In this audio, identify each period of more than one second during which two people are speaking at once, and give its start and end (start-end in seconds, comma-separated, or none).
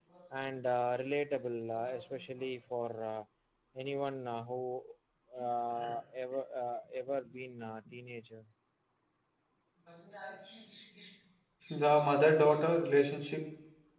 none